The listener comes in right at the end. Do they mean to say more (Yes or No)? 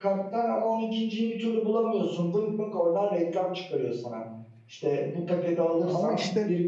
No